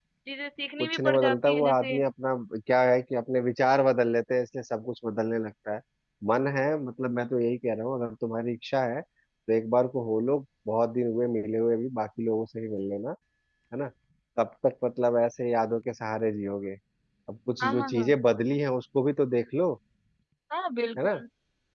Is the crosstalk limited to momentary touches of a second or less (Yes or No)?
No